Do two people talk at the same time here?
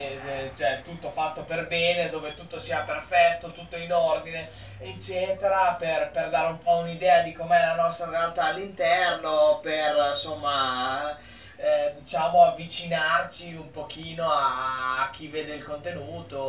No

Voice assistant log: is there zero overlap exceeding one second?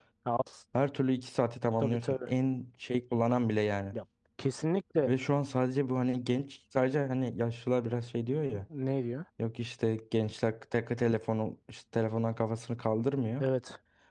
Yes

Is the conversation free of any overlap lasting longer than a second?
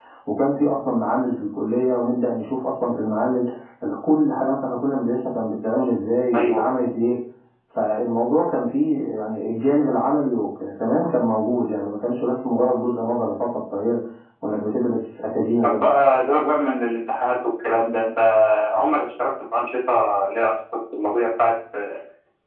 Yes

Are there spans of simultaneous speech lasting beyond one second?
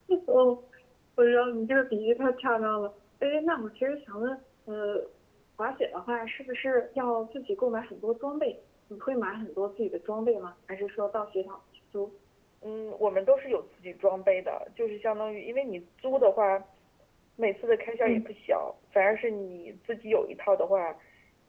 No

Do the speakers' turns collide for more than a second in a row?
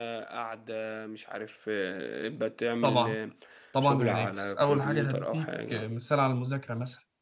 Yes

